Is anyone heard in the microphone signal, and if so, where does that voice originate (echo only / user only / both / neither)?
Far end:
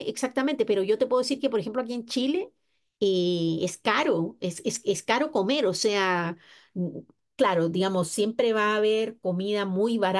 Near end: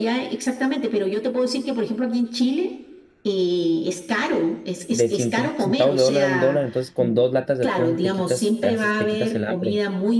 both